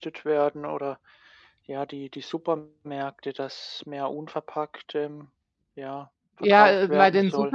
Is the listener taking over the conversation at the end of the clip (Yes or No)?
Yes